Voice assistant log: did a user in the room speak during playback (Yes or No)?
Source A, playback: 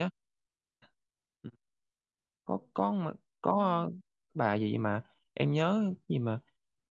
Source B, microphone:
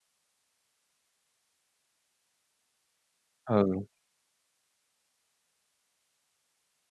Yes